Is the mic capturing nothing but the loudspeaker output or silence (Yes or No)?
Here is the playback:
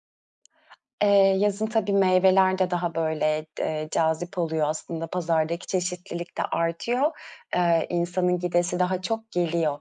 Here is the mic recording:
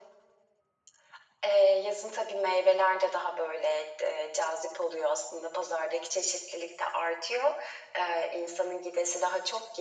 Yes